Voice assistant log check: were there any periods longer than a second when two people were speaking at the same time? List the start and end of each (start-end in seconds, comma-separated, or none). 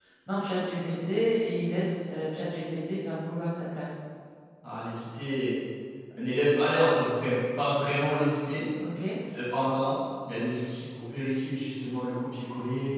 none